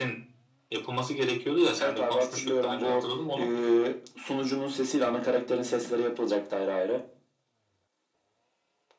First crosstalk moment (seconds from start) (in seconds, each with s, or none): 1.8 s